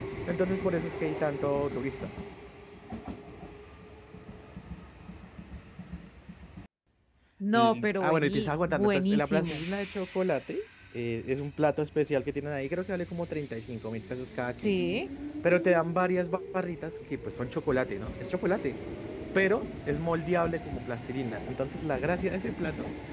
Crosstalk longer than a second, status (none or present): present